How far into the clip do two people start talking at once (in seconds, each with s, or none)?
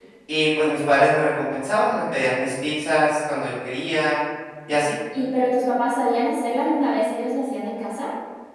none